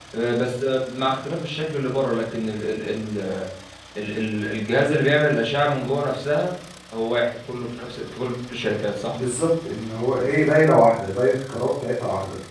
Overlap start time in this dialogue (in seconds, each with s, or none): none